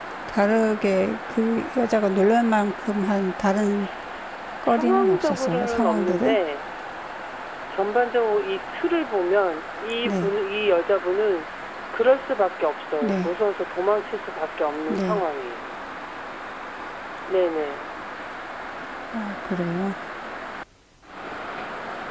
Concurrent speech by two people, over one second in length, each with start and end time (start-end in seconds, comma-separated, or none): 4.6-6.4